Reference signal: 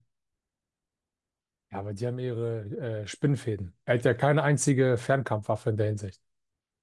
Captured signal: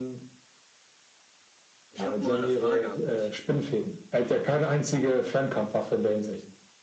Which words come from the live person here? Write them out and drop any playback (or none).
Ich habe mal eine Frage an dich.